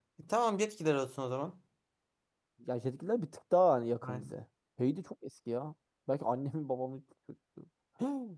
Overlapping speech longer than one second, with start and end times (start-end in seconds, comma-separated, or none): none